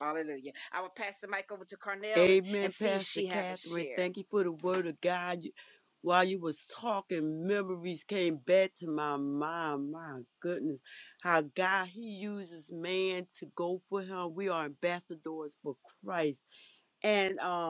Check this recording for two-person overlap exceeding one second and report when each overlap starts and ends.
2.2-4.0

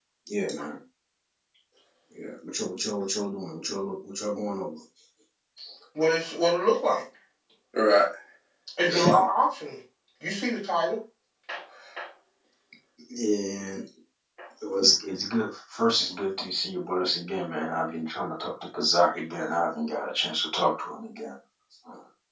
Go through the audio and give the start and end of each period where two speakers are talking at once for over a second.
none

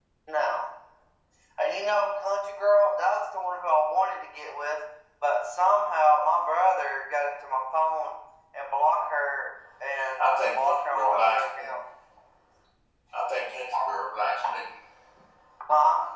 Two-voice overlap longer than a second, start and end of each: 10.2-11.7

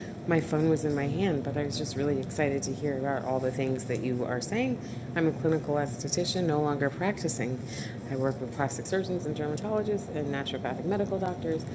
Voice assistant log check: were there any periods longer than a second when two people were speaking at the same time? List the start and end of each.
none

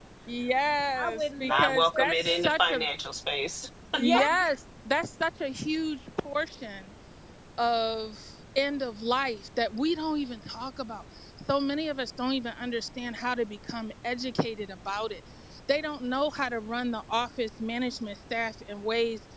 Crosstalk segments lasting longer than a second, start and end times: 1.0-2.8

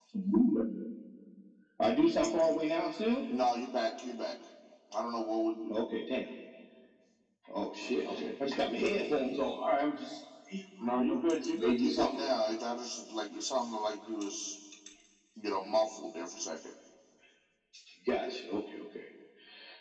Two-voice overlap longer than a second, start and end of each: 10.8-12.1

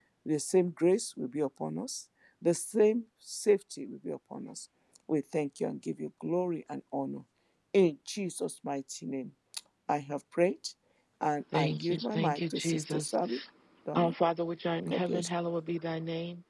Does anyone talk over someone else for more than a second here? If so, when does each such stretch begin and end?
11.5-13.2

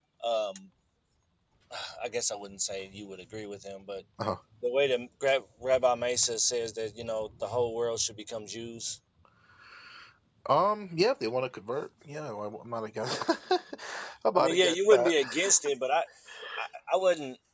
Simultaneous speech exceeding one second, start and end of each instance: 14.3-15.6

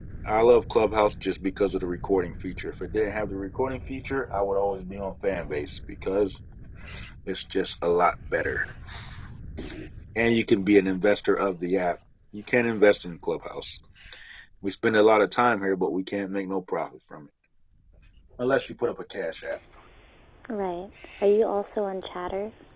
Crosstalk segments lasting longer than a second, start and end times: none

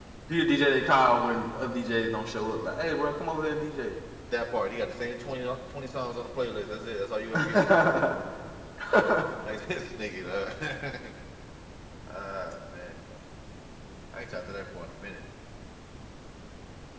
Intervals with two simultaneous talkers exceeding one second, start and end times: none

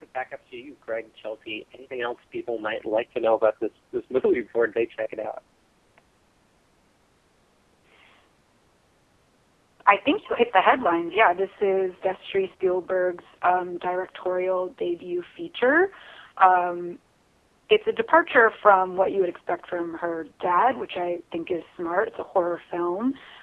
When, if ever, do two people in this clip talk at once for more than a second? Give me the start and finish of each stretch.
none

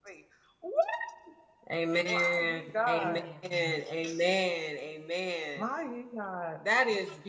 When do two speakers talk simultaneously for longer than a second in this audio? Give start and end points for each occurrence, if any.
2.1-3.5

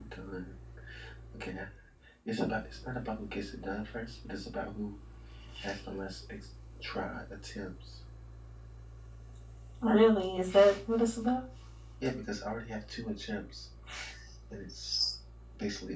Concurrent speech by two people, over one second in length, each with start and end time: none

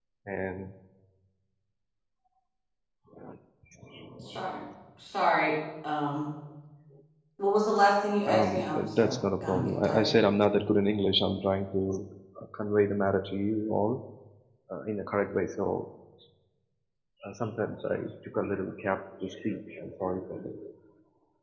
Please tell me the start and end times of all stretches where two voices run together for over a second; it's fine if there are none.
8.3-10.1

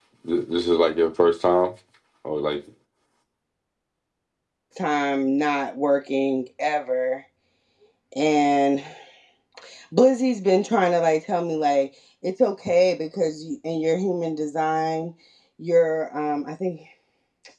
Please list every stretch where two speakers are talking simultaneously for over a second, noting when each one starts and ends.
none

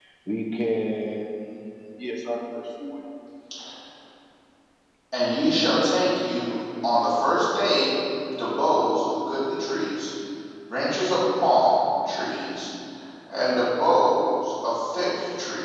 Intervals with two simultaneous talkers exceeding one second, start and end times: none

